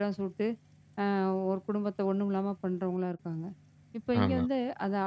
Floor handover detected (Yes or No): No